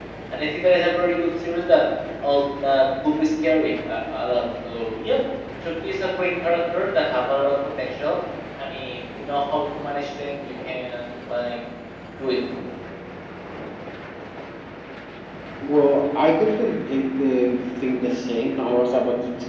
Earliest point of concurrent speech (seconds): none

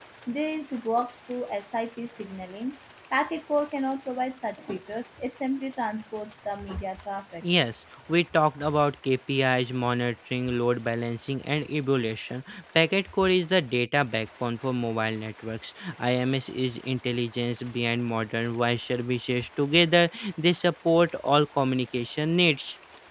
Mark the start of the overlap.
none

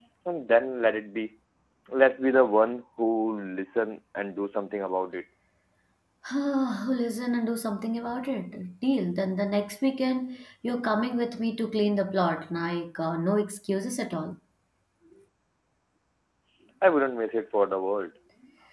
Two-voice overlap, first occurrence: none

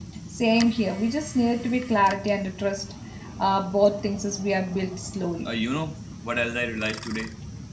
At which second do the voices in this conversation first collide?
none

